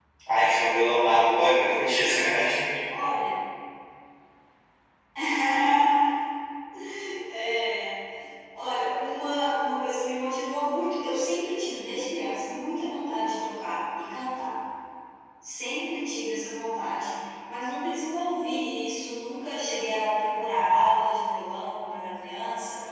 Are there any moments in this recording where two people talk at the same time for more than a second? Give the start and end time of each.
none

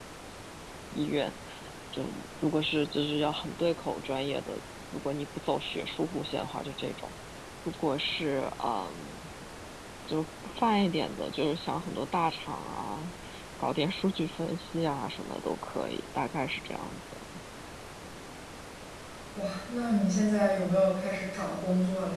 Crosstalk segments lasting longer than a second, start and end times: none

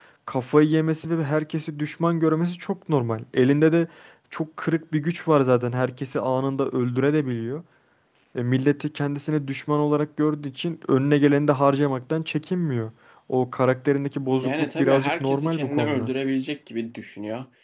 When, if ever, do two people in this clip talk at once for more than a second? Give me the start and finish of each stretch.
14.4-16.1

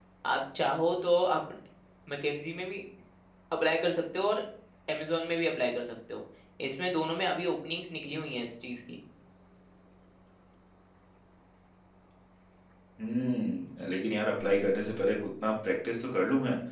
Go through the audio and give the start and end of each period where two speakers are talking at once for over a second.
none

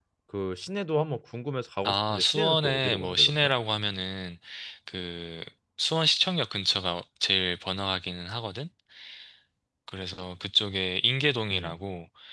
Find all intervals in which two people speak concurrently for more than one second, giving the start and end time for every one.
1.8-3.5

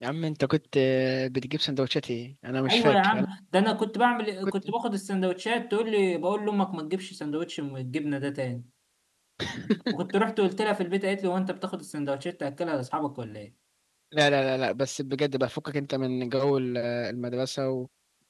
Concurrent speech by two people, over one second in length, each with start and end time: none

